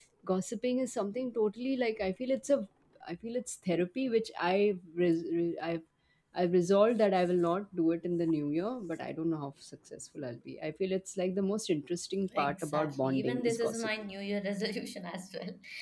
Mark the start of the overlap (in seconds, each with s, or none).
12.3 s